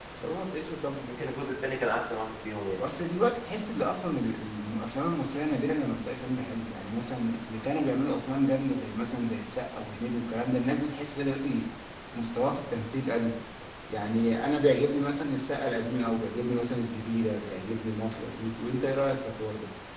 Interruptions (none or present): none